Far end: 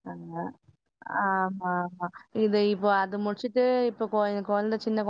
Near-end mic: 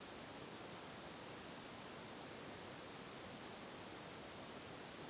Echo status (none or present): none